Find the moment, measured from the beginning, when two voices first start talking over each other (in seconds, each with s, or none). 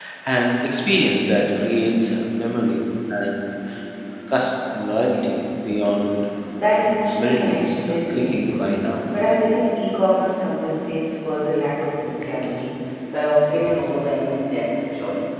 7.2 s